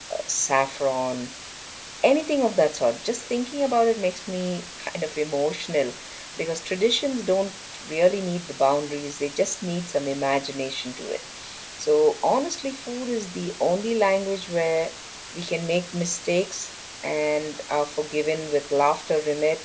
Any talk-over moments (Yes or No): No